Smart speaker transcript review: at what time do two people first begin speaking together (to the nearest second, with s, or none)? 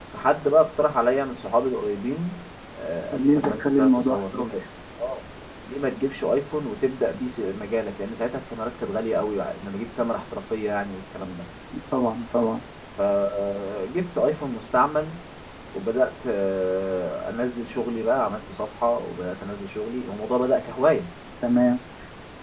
3 s